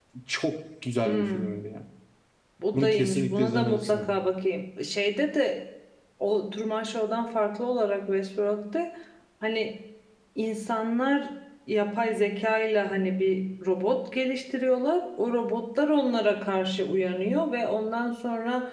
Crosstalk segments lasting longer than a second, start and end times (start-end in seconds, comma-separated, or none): 2.7-4.1